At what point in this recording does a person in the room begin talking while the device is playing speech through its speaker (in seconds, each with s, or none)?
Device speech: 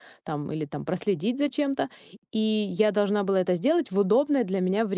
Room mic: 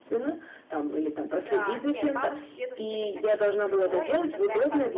1.3 s